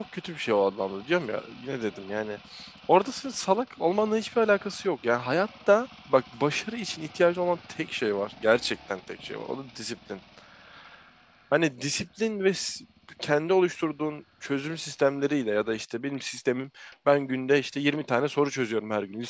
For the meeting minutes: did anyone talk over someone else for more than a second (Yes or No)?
No